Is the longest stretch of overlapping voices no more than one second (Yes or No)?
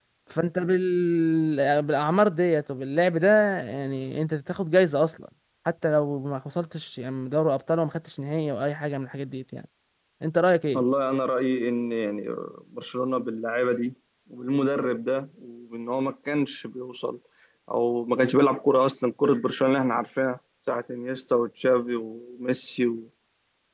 Yes